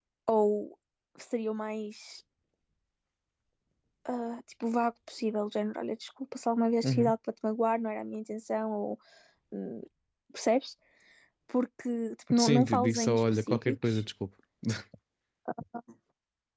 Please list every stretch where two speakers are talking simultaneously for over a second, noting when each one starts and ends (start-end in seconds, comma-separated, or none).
12.4-14.0